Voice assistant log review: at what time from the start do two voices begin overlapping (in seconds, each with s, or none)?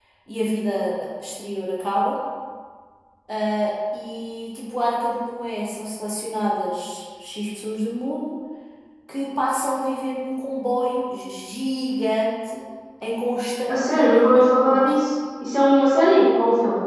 13.7 s